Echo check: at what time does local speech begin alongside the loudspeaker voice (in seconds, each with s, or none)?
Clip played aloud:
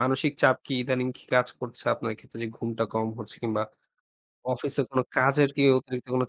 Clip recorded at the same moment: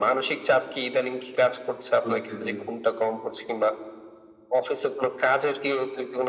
2.0 s